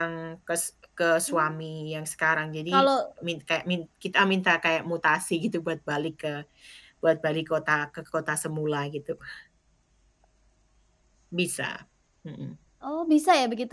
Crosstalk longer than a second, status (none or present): none